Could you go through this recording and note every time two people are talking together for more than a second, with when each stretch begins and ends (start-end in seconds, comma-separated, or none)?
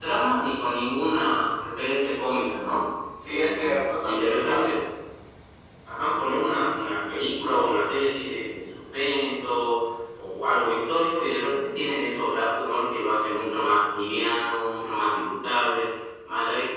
3.2-4.7